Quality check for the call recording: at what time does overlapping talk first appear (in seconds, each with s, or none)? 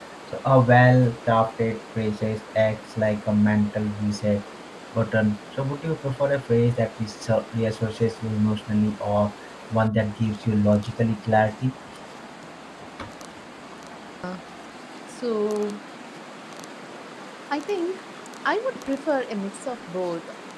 none